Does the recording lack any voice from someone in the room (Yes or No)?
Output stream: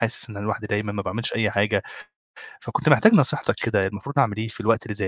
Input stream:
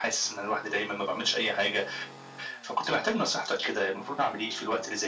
Yes